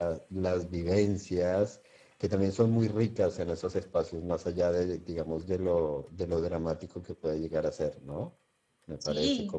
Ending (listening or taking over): listening